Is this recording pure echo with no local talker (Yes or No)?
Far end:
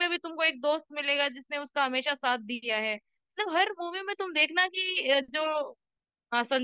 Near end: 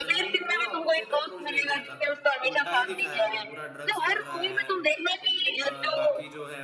No